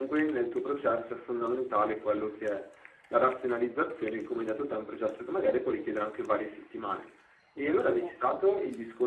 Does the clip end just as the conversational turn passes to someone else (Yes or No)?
No